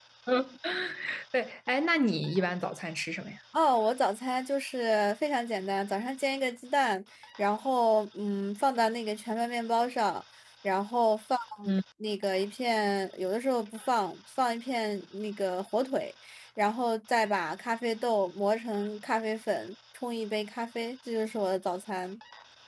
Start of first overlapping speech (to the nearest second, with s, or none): none